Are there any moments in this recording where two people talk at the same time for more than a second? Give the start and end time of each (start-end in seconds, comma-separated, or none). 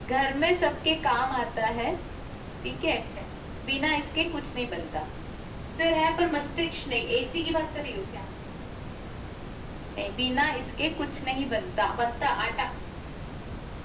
none